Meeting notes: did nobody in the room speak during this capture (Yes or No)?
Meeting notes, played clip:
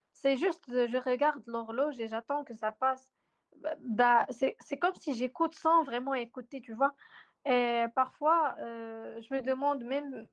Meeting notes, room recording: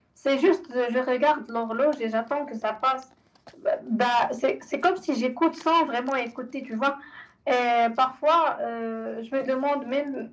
Yes